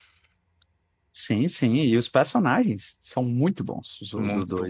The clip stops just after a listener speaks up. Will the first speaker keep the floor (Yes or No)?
No